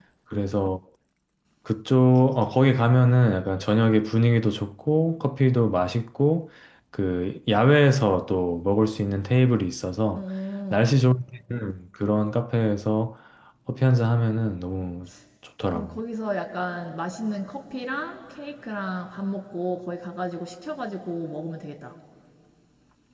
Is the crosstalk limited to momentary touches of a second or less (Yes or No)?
Yes